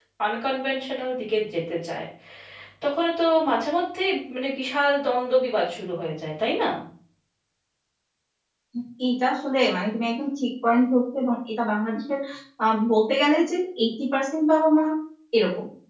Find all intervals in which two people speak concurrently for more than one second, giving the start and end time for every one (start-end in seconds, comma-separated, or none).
none